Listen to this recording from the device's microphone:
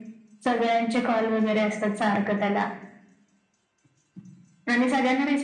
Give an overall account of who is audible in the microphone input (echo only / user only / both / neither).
echo only